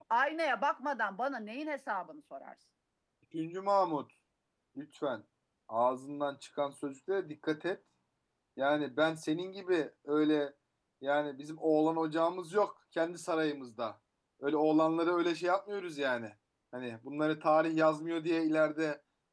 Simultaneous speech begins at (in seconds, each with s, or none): none